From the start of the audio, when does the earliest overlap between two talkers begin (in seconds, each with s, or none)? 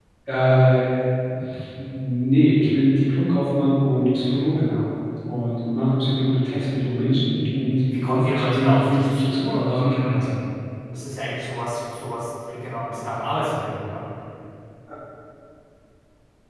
7.9 s